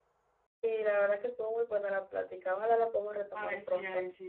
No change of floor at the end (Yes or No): No